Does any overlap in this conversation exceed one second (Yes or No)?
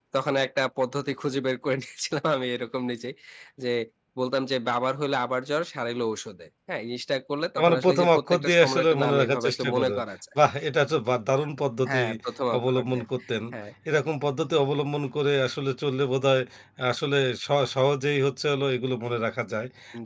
Yes